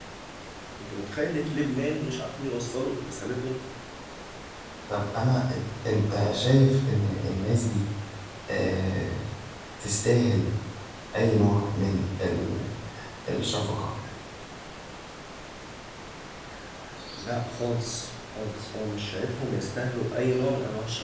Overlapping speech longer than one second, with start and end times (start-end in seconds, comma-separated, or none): none